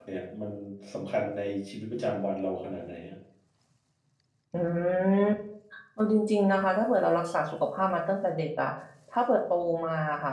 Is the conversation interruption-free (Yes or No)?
Yes